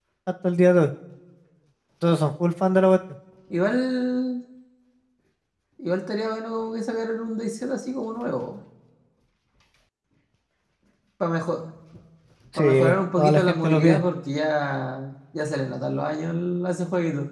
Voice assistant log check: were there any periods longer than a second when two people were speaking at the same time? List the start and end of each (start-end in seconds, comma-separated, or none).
12.6-14.0